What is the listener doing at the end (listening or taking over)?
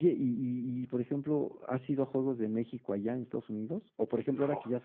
listening